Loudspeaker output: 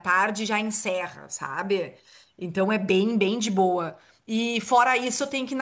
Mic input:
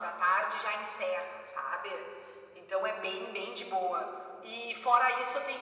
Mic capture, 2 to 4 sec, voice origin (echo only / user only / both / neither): echo only